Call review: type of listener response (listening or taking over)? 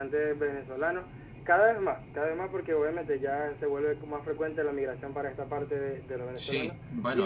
taking over